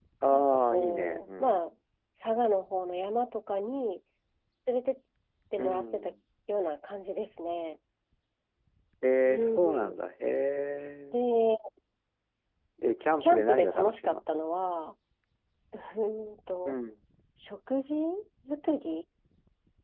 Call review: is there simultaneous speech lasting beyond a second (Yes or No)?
Yes